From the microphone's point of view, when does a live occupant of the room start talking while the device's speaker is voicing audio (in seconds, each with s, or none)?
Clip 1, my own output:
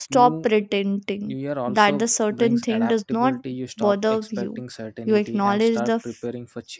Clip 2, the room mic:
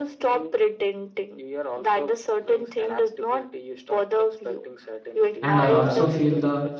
5.5 s